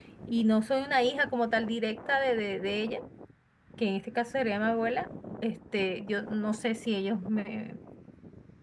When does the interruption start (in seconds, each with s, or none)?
none